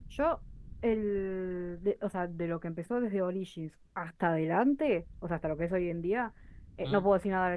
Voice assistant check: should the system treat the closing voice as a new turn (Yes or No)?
No